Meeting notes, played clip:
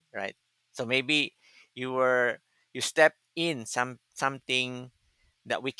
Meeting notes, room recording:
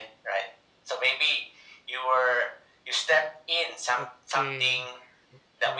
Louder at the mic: echo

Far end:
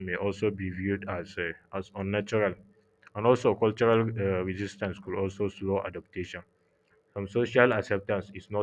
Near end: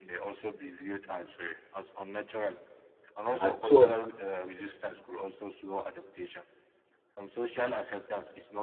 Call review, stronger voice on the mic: user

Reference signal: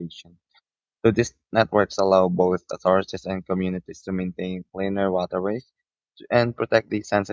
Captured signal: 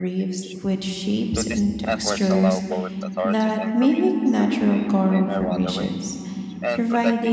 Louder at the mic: user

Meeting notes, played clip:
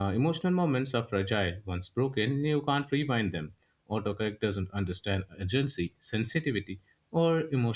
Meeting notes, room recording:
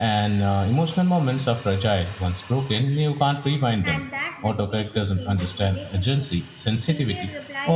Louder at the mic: echo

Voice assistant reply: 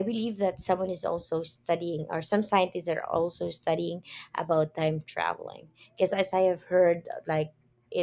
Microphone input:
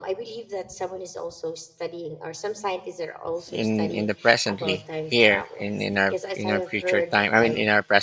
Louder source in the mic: user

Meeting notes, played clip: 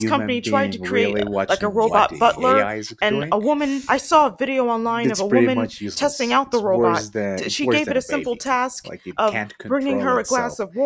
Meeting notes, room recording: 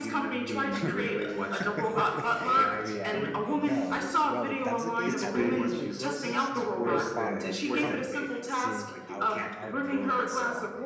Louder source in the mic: echo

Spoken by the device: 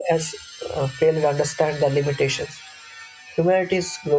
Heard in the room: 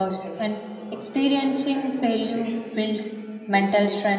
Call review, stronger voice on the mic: user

